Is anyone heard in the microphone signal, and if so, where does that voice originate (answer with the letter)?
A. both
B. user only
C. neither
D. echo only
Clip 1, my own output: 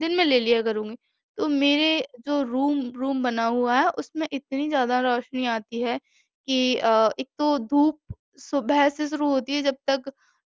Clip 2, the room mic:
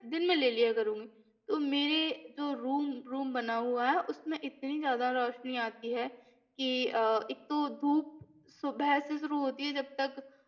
D